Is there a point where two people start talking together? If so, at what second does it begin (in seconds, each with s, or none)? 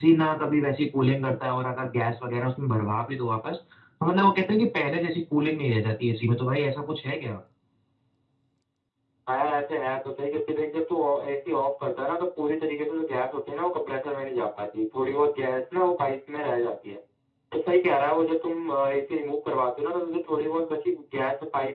none